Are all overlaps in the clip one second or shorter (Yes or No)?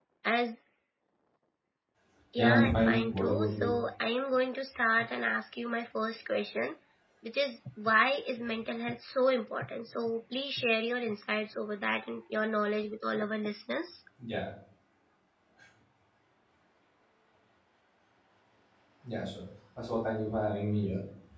No